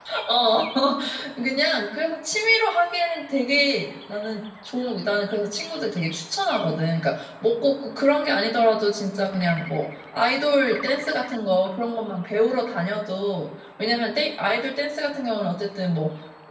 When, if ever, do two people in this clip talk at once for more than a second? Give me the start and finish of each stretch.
none

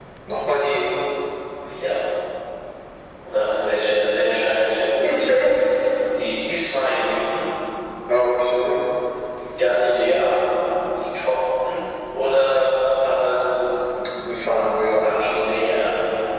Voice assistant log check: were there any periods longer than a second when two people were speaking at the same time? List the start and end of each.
none

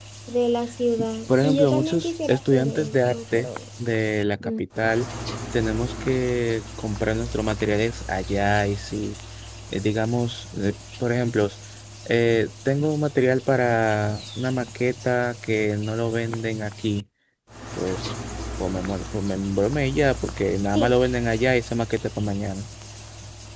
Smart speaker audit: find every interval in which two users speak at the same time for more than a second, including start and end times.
1.4-3.5

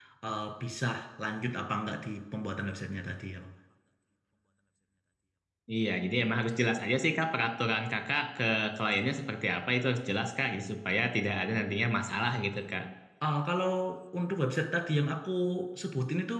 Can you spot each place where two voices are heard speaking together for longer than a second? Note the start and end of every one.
none

